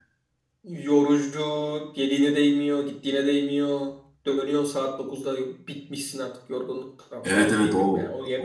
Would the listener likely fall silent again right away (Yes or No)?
No